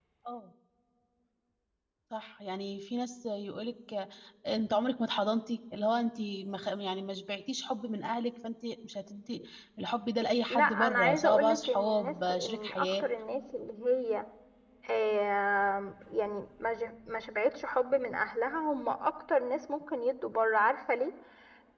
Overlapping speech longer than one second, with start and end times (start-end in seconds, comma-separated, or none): 10.5-13.0